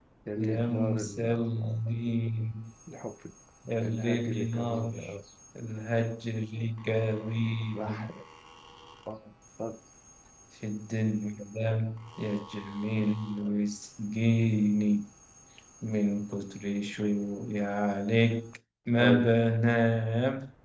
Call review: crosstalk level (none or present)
present